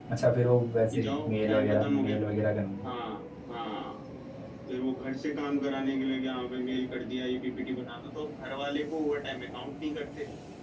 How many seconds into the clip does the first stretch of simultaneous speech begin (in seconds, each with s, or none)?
0.9 s